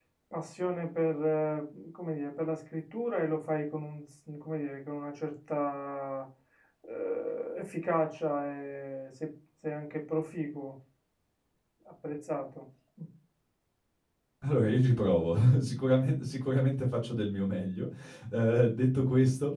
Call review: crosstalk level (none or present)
none